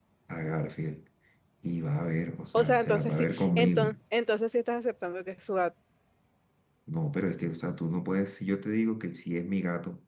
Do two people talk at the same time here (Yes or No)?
Yes